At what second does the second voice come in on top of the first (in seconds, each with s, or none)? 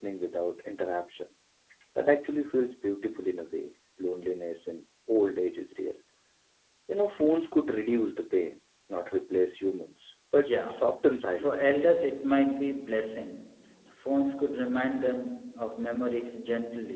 10.4 s